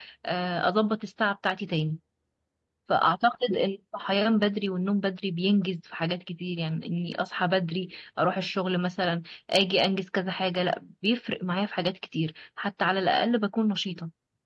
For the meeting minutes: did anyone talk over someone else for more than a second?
No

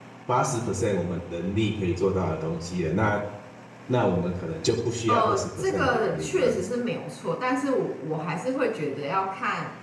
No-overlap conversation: No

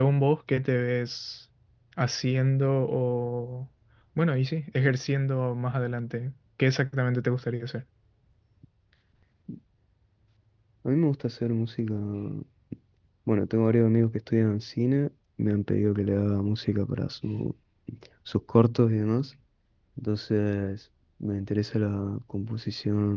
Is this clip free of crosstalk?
Yes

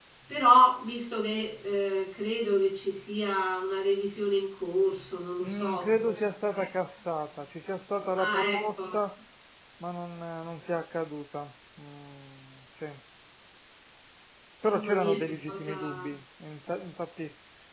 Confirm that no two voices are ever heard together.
No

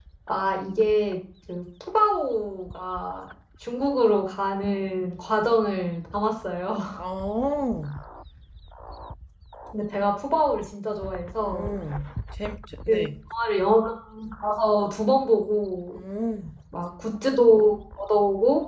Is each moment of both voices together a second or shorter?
Yes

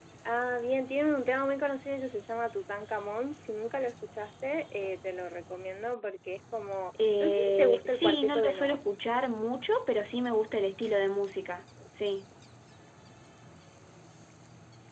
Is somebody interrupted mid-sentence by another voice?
Yes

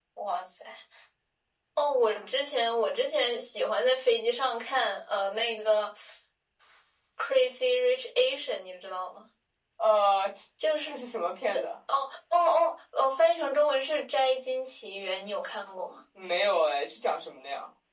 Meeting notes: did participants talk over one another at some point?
No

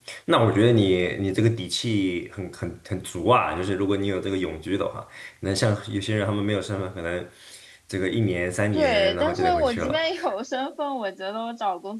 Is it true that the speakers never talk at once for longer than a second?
No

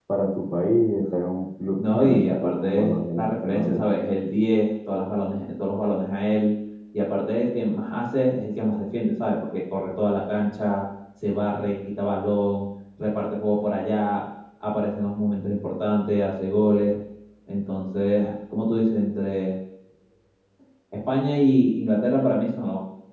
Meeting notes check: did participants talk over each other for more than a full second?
Yes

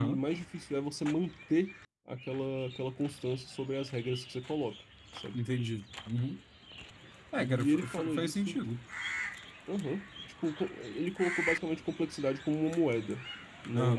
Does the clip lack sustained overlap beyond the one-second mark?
No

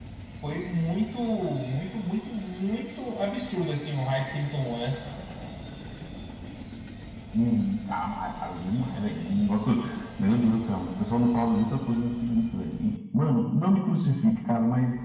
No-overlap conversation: Yes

